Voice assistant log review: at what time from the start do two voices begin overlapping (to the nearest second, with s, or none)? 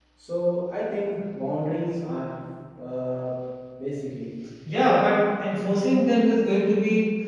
none